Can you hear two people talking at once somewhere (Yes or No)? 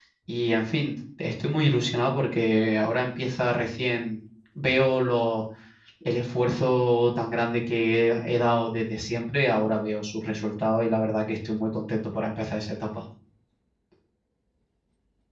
No